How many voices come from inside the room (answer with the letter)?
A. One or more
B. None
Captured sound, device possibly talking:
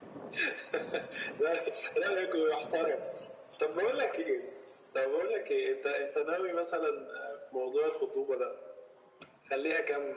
B